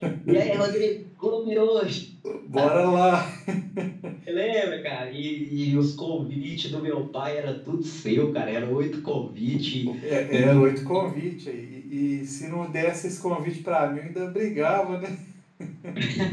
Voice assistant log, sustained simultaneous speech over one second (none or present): none